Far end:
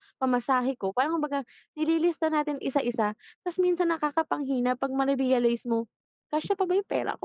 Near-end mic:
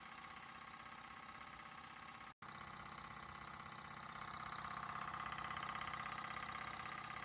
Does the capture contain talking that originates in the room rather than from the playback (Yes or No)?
No